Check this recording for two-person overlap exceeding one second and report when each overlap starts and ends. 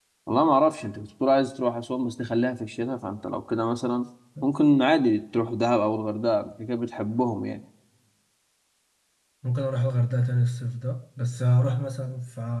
none

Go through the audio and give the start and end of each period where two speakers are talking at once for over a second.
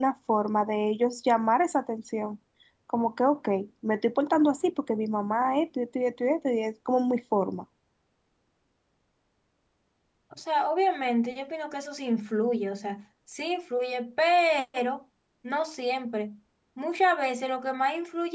none

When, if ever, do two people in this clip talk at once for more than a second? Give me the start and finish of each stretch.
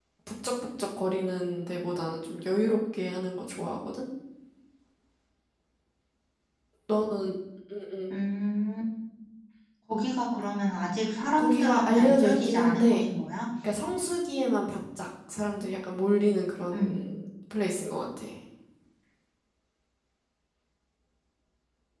11.4-13.0

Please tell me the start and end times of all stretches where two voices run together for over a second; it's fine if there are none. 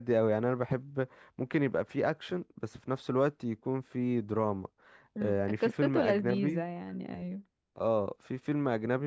5.2-6.6

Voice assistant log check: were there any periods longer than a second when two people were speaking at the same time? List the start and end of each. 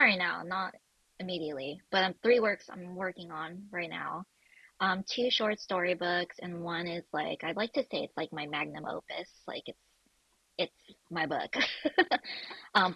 none

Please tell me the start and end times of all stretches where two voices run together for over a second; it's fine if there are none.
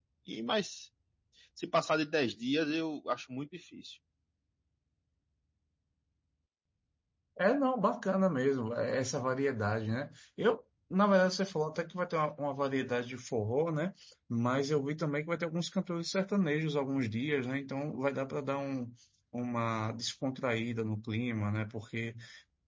none

